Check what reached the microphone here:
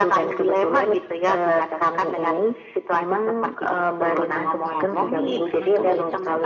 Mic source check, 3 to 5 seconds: both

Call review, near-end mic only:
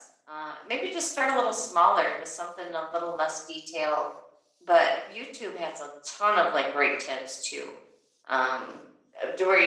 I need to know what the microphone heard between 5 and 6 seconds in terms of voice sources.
echo only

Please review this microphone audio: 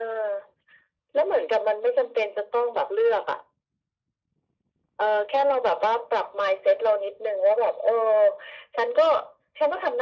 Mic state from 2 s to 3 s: echo only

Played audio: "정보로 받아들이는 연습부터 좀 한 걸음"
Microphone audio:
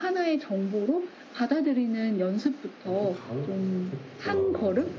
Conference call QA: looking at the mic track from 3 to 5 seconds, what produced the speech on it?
both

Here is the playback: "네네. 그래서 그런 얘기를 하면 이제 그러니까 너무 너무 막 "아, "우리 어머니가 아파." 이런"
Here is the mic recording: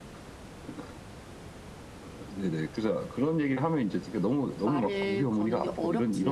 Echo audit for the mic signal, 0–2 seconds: neither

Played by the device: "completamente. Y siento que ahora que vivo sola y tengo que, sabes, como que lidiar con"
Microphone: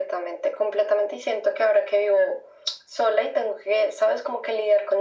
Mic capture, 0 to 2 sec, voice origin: echo only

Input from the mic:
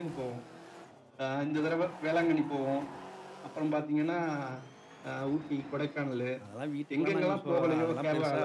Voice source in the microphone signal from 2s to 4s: echo only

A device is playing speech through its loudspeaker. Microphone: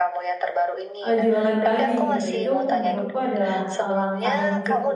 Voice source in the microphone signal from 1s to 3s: both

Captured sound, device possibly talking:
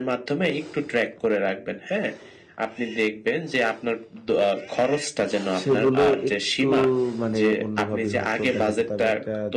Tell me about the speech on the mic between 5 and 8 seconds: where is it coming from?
both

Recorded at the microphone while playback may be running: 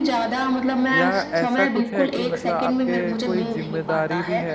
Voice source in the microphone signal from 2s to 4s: both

